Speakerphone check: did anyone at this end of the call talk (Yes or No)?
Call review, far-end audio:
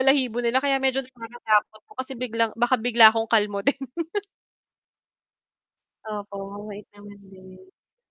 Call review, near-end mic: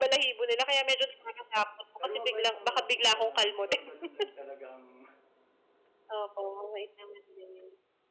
Yes